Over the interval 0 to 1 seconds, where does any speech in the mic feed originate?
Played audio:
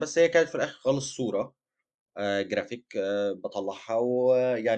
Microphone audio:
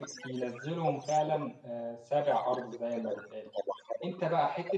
both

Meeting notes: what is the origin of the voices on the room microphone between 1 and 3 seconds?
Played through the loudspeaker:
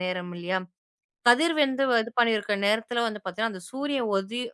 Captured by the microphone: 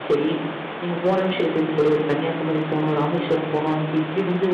user only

